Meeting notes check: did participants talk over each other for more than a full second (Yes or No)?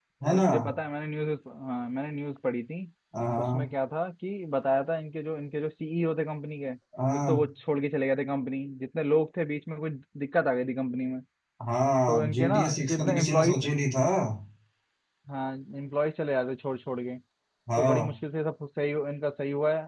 Yes